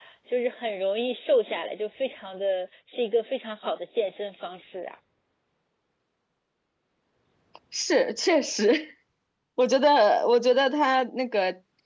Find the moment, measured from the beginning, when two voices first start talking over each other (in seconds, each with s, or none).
none